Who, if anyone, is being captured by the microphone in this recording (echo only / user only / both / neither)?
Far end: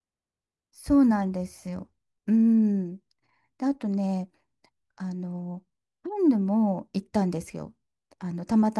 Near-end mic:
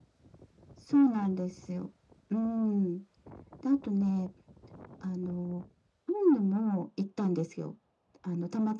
echo only